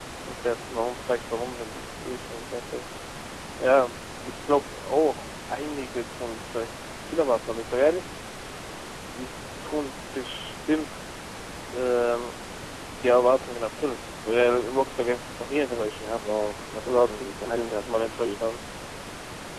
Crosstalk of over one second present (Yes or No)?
Yes